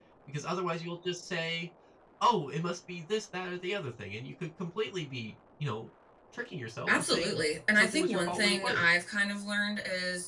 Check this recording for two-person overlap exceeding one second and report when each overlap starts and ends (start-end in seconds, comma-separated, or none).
6.9-8.8